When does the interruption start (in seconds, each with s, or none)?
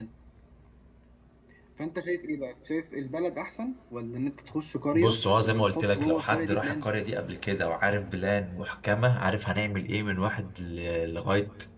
4.9 s